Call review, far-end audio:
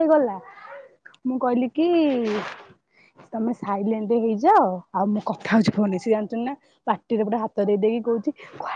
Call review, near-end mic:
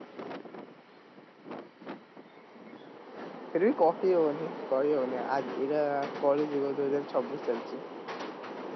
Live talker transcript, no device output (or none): ଫିର୍ବି କହି ହଉନି କହି ହଉନି ଆଜି ଏଇଟା କଳିଯୁଗ ଦୁଇ ହଜାର ଛବିଶ ଚାଲିଛି।